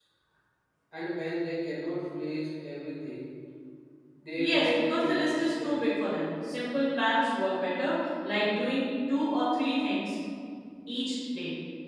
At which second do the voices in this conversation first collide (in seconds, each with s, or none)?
4.4 s